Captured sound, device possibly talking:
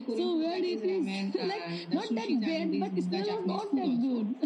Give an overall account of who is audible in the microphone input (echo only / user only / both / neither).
echo only